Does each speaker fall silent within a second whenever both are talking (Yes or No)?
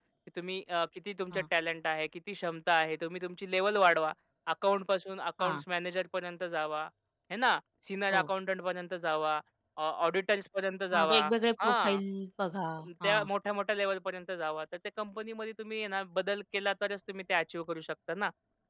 Yes